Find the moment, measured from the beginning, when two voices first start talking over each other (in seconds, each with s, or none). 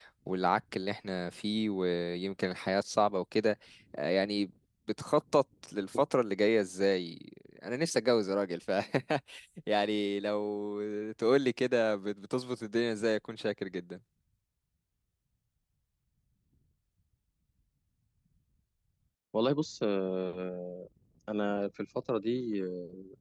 none